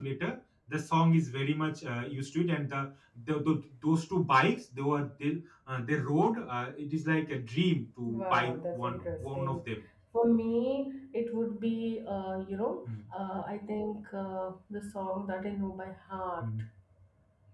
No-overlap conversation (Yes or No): No